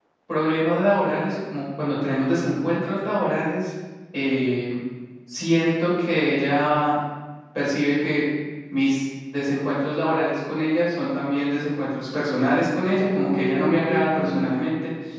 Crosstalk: present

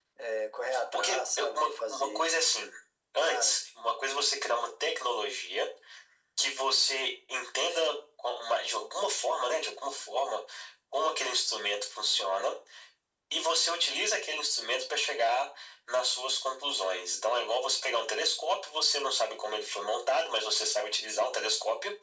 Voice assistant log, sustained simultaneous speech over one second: present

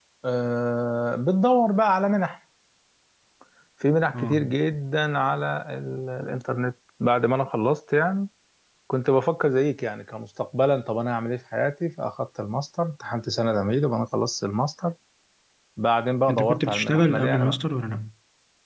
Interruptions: present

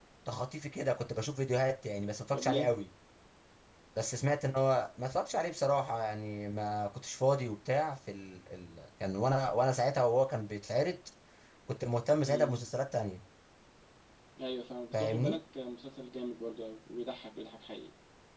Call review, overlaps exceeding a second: none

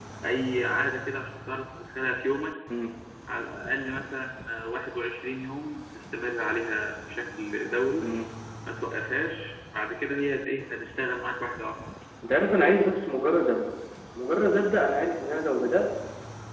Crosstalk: none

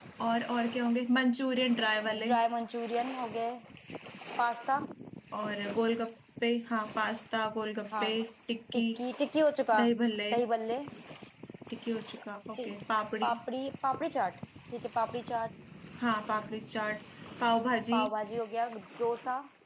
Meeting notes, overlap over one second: none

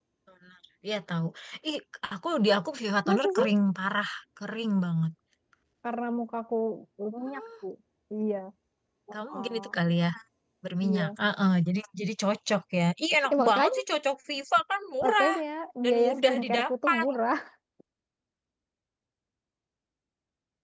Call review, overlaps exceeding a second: present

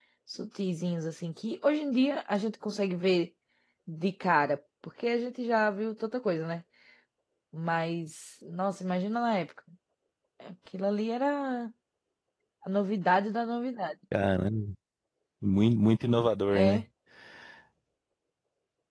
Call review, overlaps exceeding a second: none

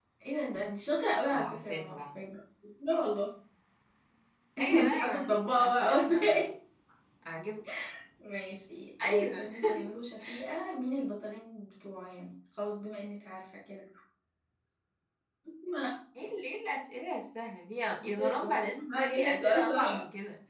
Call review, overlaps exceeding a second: present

